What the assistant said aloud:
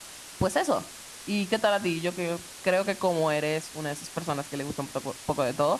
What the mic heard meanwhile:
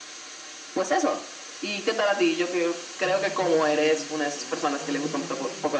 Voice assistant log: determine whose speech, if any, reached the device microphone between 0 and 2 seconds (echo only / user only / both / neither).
echo only